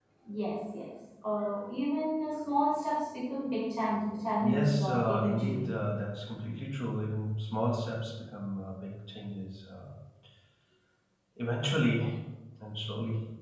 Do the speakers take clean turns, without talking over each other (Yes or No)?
No